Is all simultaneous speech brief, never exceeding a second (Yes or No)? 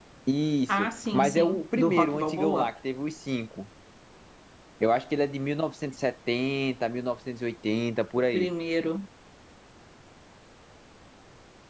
No